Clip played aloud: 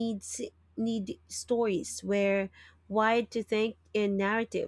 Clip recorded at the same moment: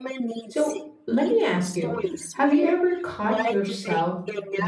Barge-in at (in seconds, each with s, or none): 0.5 s